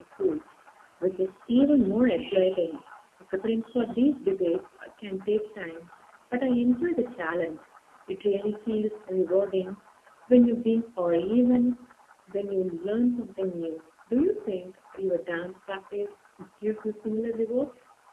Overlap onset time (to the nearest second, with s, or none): none